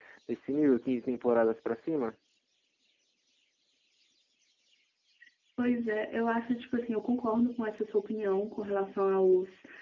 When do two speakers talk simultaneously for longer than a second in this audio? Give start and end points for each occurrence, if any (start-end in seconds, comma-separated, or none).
none